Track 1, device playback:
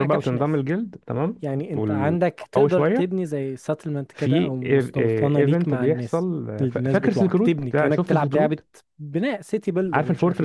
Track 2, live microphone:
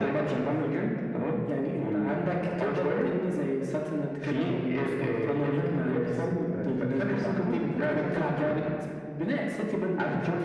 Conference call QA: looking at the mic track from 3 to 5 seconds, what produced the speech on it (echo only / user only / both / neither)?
echo only